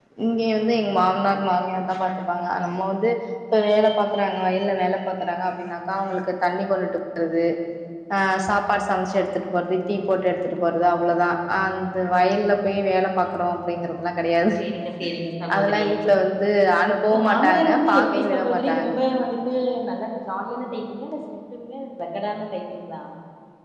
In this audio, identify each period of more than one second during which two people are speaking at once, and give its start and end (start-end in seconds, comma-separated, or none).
17.1-18.9